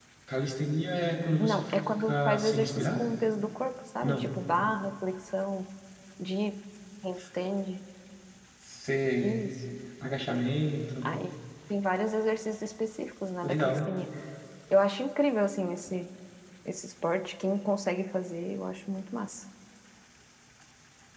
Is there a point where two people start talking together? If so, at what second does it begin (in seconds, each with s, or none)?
1.4 s